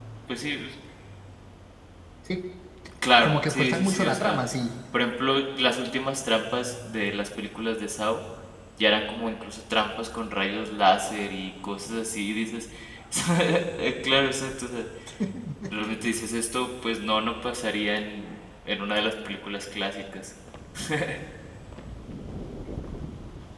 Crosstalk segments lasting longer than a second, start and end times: 3.2-4.4

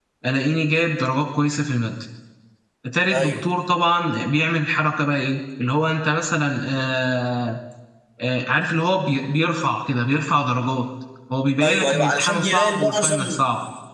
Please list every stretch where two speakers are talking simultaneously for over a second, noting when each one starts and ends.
11.6-13.2

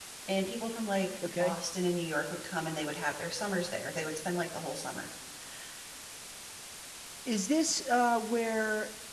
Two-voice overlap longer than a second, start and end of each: none

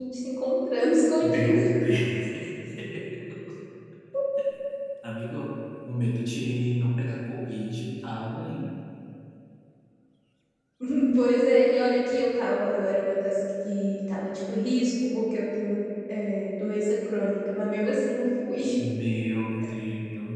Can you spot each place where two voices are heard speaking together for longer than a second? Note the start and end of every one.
none

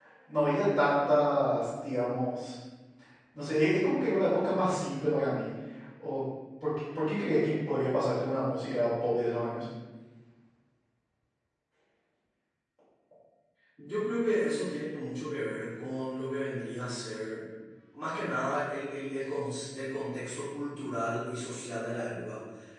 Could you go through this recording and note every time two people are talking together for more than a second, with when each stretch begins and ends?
none

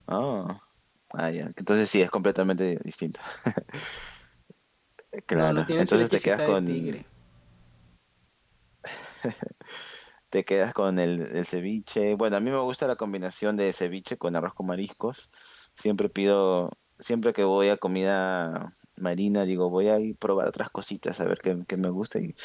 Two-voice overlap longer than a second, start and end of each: 5.3-7.0

